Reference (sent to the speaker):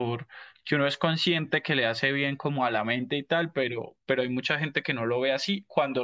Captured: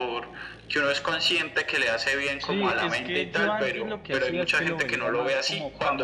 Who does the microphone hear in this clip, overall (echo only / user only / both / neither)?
both